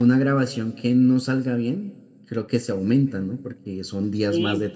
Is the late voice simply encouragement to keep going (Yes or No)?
Yes